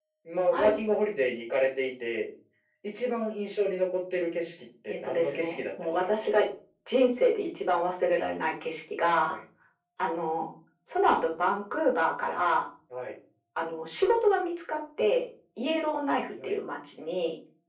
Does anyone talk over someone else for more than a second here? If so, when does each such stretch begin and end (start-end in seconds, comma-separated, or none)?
4.9-6.3